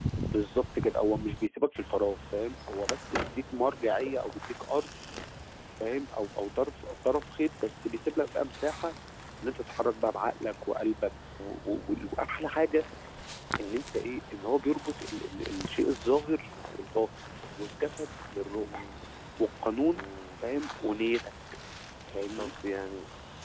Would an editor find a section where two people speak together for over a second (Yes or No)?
No